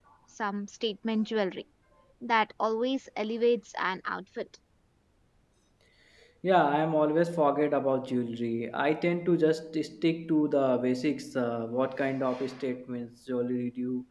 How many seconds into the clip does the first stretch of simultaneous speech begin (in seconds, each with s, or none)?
none